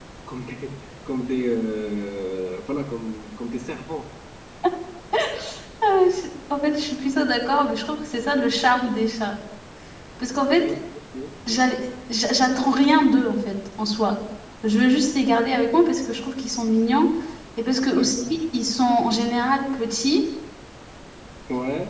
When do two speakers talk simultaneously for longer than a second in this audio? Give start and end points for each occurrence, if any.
none

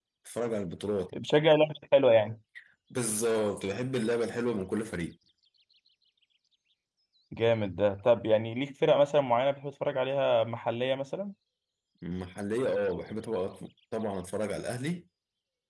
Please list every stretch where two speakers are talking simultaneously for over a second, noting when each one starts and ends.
none

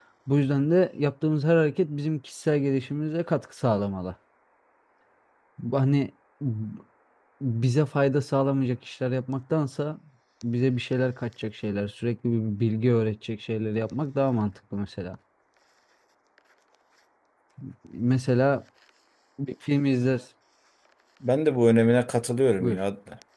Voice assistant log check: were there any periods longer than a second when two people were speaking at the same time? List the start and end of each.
none

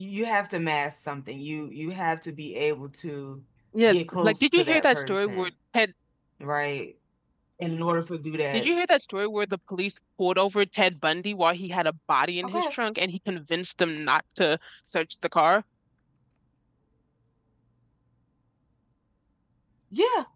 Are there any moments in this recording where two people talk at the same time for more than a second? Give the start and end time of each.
3.9-5.5

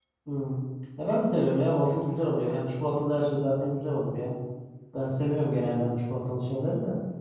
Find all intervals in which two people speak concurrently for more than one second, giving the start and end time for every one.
none

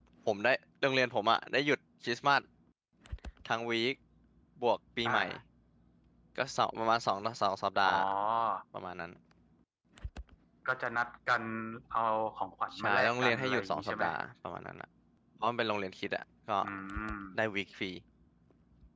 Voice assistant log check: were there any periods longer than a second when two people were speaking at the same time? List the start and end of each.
12.8-14.1

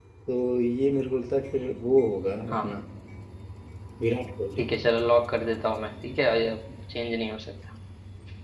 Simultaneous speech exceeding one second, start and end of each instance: none

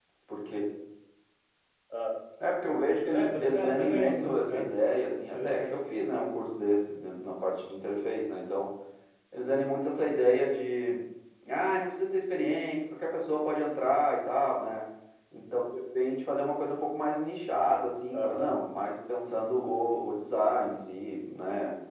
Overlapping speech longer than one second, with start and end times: 3.1-4.7

